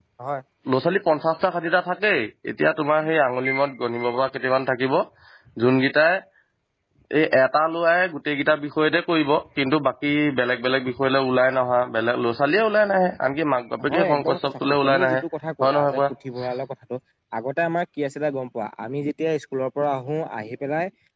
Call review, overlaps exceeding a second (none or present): present